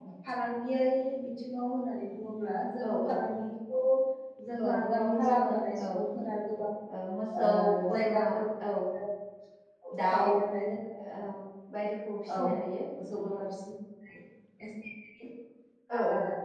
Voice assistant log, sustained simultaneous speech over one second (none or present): present